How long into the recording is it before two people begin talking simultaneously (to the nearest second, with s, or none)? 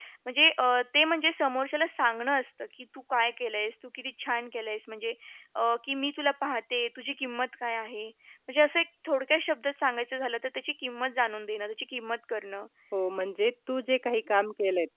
none